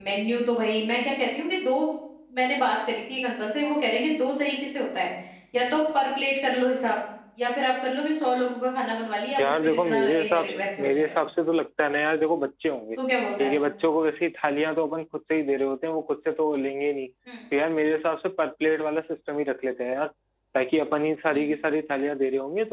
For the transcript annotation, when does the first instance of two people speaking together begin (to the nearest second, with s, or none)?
9 s